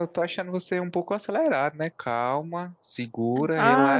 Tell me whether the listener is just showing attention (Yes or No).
No